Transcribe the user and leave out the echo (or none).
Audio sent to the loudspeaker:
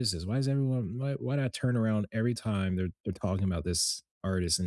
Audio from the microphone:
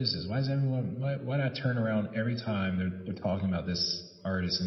none